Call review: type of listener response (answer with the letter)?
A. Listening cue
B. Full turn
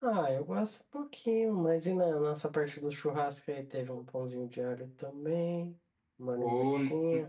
B